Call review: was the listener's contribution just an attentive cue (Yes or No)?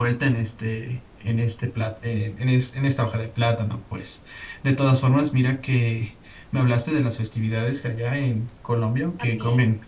Yes